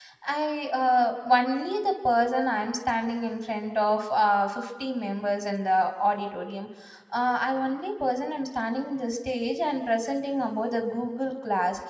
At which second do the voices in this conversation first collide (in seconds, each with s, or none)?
none